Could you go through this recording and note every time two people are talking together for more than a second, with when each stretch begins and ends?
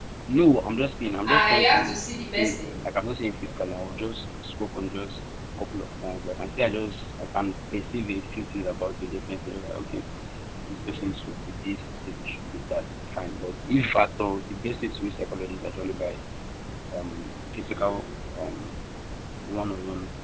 1.3-2.6

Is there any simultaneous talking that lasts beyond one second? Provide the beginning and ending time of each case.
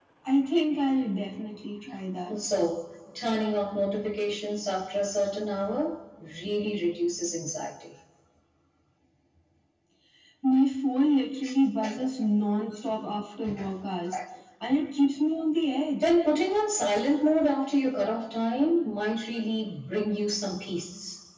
none

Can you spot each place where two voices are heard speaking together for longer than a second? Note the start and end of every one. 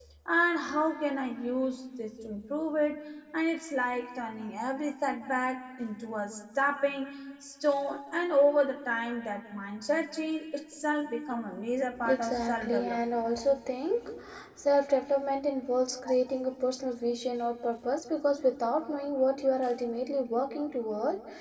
12.0-13.2

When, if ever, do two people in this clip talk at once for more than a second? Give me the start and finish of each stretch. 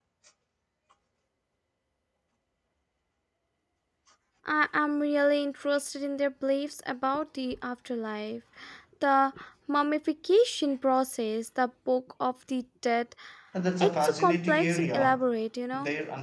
13.8-15.2

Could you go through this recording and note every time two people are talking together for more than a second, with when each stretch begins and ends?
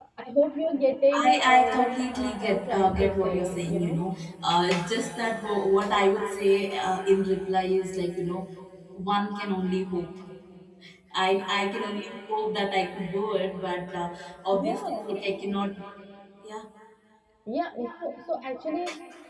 1.2-4.0

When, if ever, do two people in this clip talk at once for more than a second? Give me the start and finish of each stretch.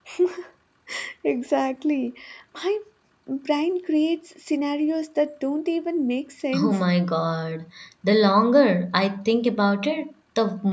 none

